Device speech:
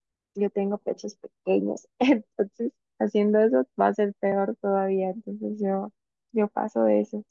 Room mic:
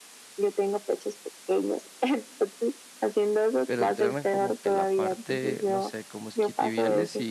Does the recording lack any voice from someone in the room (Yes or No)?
No